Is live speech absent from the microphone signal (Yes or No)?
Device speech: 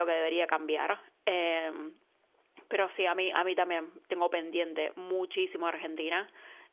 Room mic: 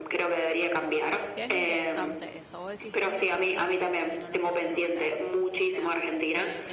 No